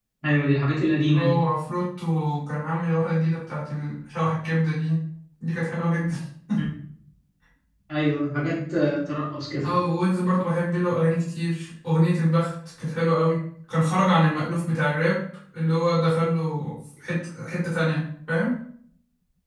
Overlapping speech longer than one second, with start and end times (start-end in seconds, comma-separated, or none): none